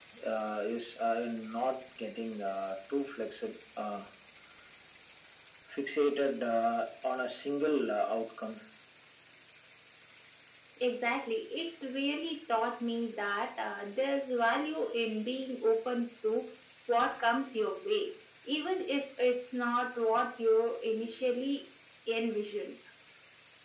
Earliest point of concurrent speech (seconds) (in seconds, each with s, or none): none